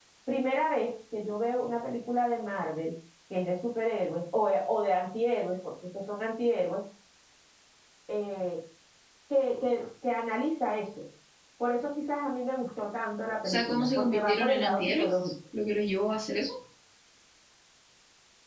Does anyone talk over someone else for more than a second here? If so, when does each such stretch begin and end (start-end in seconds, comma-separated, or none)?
13.4-15.3